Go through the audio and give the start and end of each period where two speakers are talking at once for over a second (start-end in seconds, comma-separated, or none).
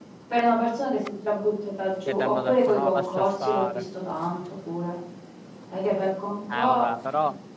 2.1-3.8